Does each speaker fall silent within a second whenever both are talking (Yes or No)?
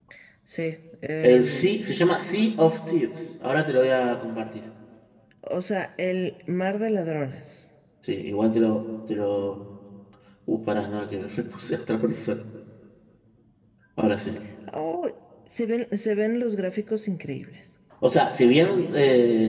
Yes